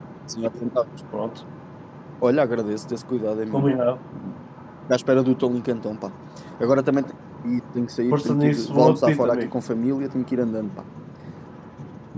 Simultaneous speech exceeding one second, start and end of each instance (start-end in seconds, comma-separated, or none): 8.1-9.5